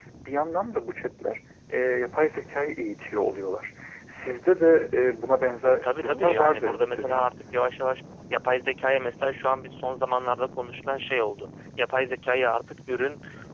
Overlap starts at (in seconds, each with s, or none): 5.6 s